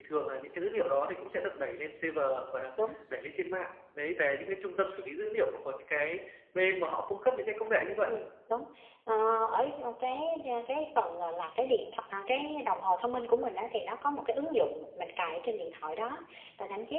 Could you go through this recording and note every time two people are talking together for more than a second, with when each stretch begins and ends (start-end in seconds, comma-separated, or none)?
none